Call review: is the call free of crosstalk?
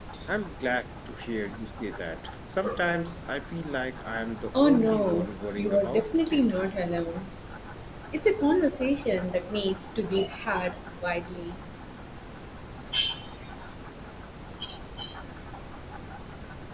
No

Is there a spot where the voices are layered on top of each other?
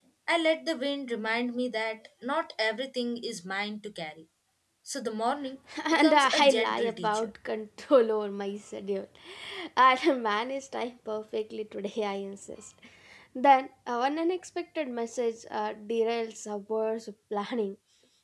Yes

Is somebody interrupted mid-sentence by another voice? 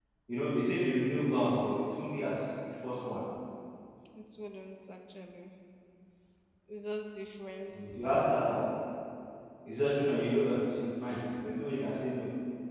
No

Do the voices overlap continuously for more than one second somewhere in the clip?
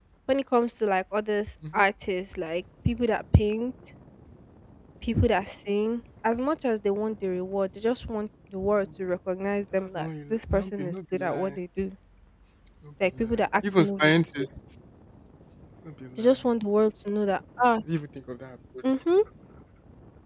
Yes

